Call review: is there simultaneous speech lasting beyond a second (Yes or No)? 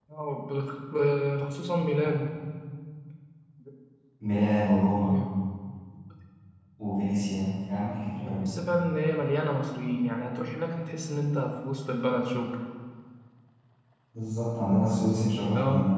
No